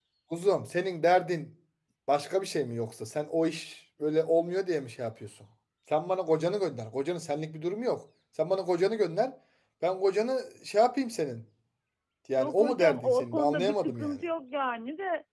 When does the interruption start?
12.4 s

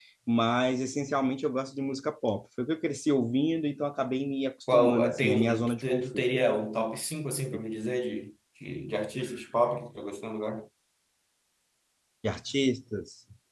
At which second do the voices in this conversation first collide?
4.7 s

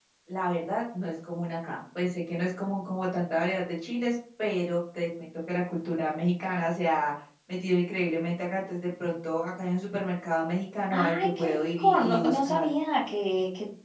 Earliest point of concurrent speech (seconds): 10.9 s

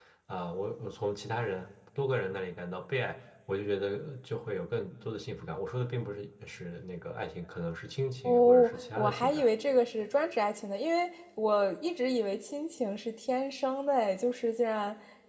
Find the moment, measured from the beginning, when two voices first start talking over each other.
8.2 s

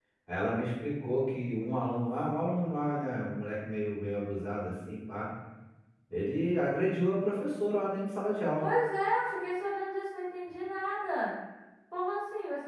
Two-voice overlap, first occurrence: none

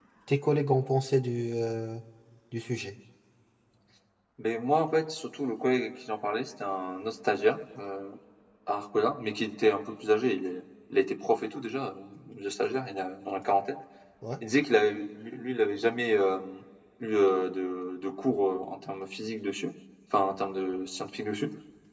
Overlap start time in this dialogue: none

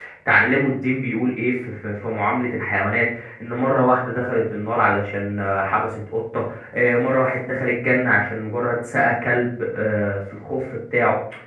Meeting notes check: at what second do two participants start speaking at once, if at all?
none

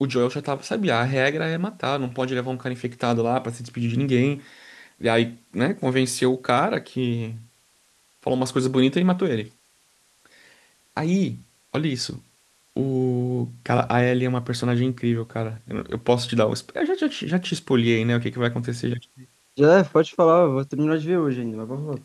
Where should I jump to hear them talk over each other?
none

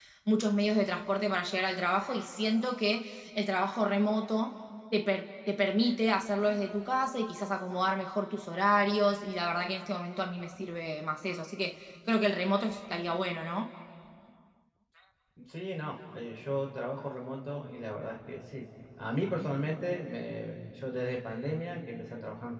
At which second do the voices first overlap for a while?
none

